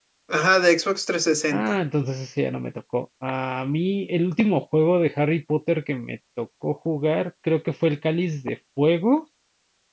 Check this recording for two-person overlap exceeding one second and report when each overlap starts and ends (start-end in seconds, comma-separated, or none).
none